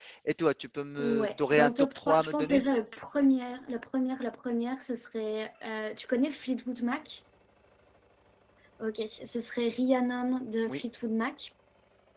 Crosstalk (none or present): present